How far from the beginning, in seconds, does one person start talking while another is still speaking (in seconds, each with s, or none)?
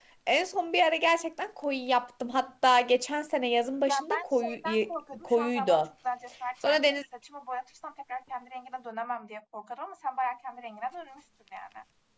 3.9 s